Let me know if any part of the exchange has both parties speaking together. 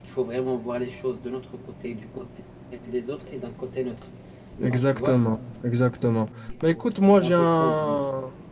Yes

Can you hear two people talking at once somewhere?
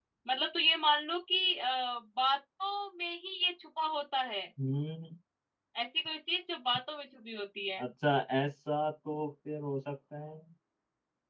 No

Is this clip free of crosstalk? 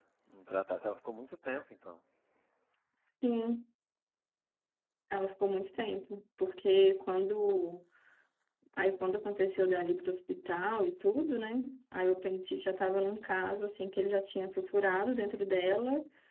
Yes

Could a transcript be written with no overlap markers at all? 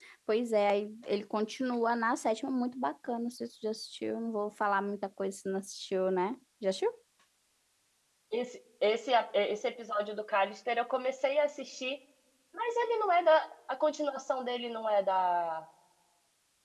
Yes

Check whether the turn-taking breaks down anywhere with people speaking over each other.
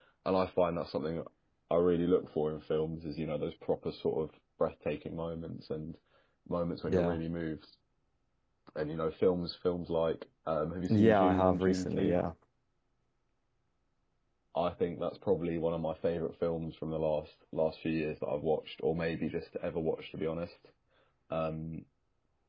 Yes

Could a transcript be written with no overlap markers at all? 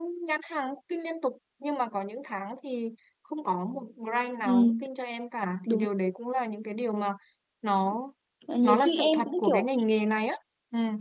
No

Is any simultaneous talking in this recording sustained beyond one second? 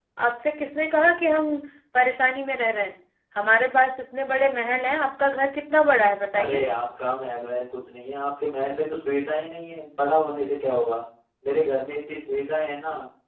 No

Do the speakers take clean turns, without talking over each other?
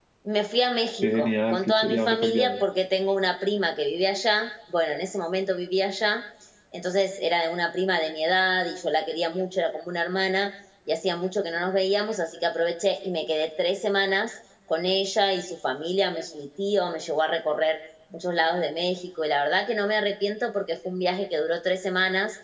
No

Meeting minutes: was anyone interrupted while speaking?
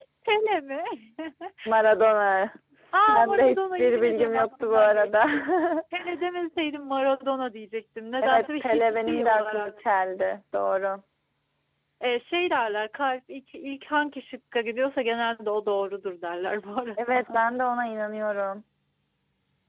Yes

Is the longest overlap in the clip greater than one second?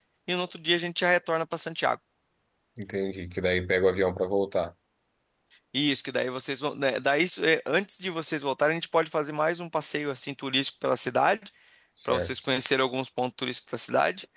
No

